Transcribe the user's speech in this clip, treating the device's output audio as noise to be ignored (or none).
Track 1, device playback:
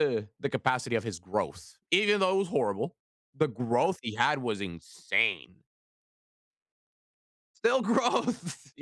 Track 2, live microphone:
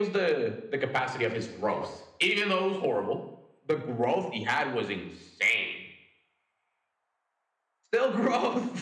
none